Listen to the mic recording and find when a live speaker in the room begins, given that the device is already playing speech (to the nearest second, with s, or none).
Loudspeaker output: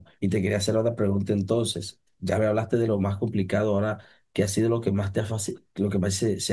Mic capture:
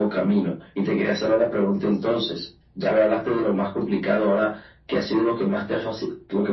none